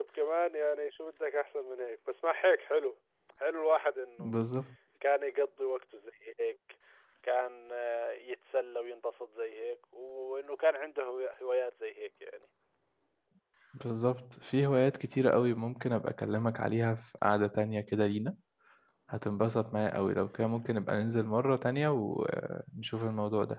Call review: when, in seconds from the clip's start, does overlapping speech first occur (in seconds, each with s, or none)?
none